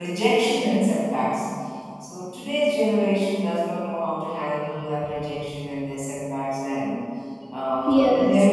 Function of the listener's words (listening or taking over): listening